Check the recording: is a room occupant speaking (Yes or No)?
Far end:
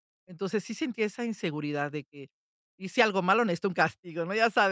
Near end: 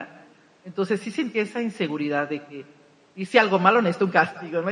No